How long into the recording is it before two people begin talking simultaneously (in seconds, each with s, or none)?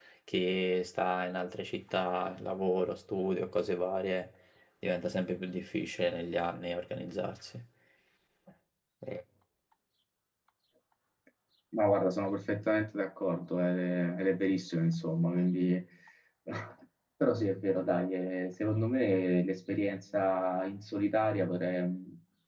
none